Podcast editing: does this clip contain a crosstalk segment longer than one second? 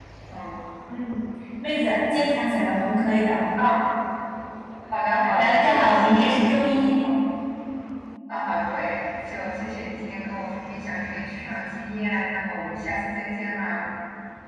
Yes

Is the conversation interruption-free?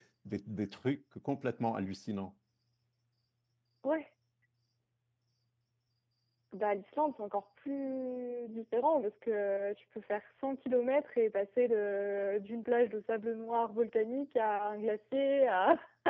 Yes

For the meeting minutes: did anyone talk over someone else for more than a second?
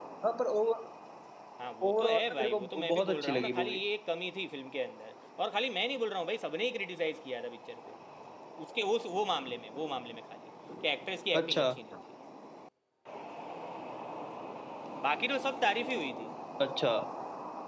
Yes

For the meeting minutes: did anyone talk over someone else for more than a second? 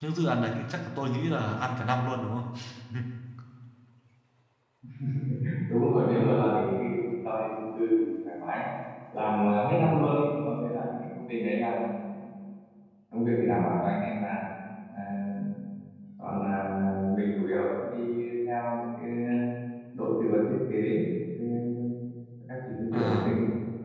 No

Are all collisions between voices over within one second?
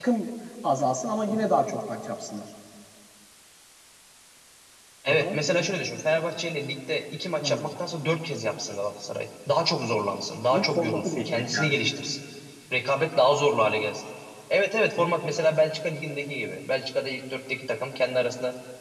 No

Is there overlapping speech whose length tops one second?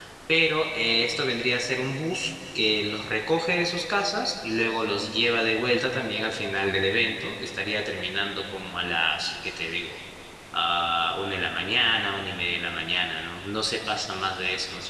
No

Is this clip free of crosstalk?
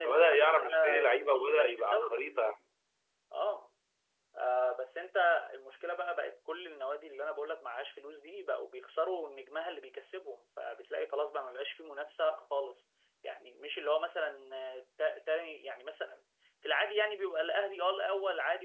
No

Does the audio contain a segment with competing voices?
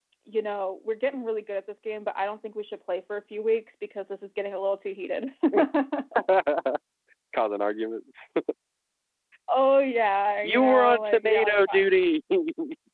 Yes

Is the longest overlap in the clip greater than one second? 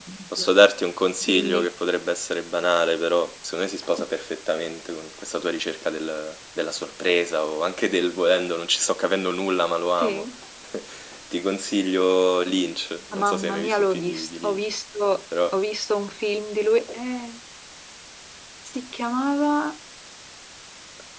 Yes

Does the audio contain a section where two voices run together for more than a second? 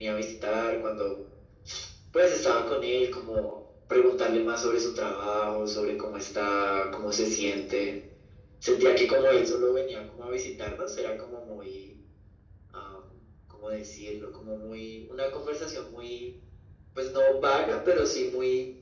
No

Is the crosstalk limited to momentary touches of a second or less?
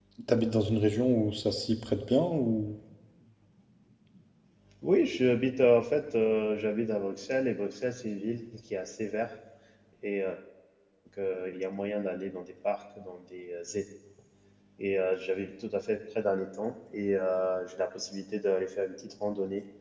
Yes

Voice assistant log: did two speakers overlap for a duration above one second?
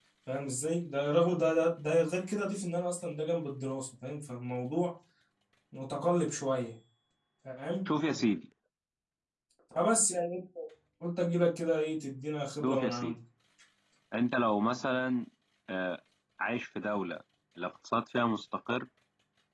No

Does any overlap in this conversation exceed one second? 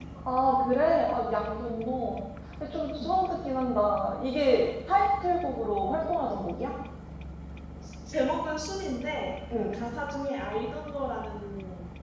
No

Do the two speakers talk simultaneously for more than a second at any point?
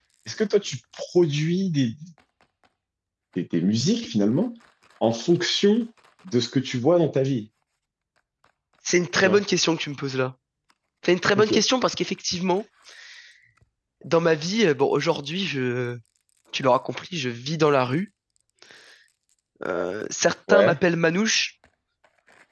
No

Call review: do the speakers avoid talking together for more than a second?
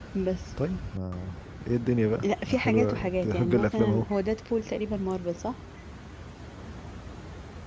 No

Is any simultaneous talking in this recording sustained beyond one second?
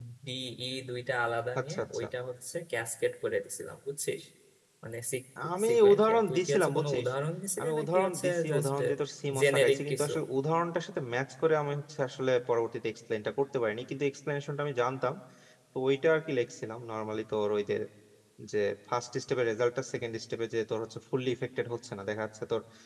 Yes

